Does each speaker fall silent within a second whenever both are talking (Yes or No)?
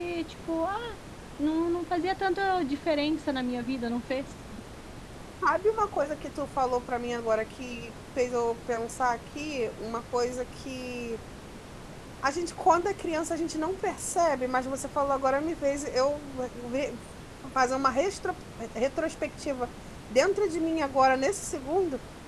Yes